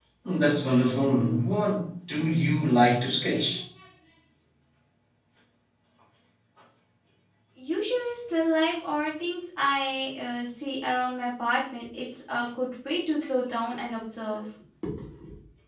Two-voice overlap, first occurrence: none

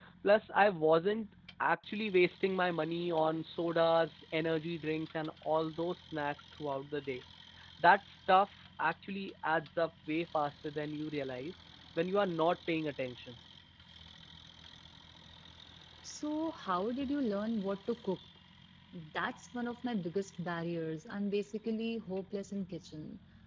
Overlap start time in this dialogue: none

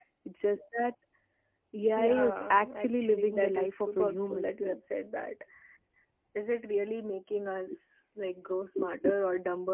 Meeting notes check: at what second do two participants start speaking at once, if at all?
2 s

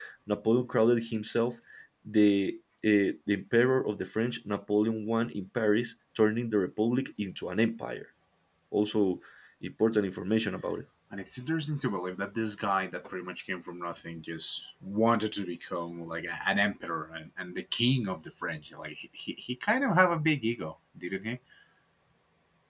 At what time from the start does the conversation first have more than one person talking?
none

